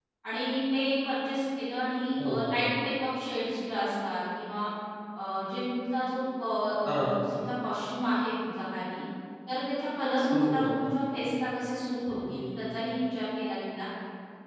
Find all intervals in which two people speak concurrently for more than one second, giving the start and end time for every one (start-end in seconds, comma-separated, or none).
10.2-11.4